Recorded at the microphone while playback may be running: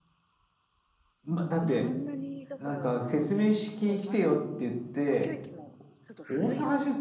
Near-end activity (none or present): present